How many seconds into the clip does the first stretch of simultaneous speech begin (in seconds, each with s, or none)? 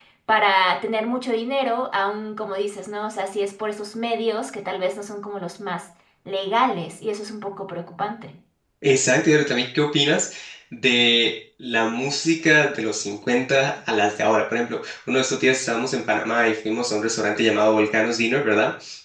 none